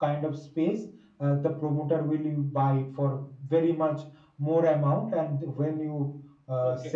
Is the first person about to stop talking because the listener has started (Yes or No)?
No